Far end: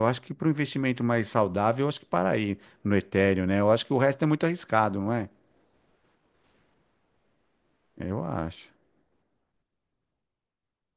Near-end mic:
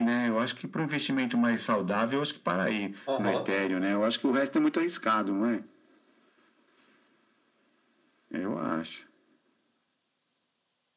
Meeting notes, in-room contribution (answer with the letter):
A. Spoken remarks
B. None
A